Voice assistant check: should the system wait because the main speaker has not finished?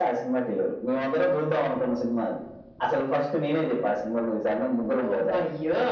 No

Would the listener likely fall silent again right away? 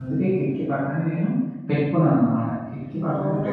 Yes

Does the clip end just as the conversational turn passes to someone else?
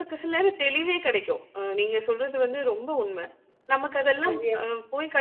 No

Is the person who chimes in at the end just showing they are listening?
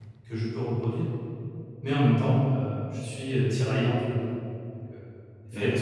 No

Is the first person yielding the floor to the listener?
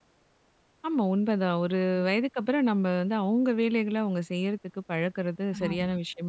Yes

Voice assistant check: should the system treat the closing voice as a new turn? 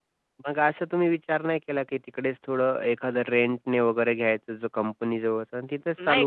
Yes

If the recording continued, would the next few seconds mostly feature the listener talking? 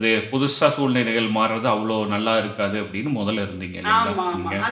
Yes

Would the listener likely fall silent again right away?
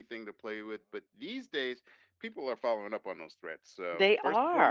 Yes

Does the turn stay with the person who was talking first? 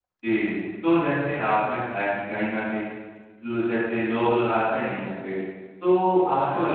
Yes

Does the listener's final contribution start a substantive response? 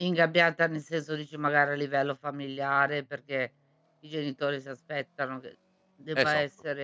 No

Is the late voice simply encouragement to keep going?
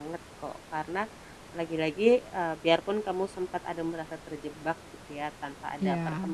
Yes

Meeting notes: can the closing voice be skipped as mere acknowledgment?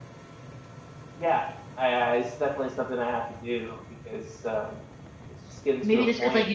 No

